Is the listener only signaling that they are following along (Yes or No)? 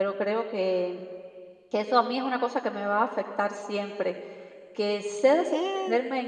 Yes